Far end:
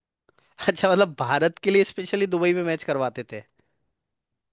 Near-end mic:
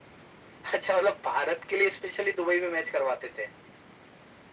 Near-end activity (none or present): none